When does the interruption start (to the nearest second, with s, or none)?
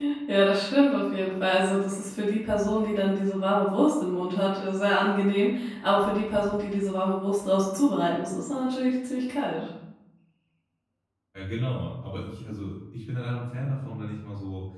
none